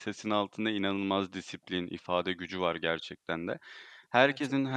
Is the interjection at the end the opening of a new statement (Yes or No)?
No